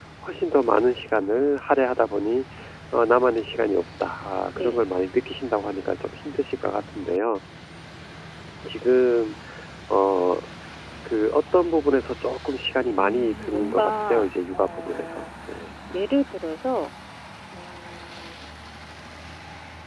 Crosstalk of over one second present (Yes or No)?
Yes